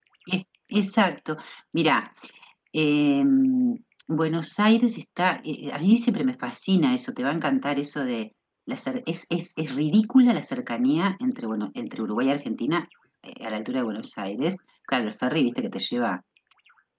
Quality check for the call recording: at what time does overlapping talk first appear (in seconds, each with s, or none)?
none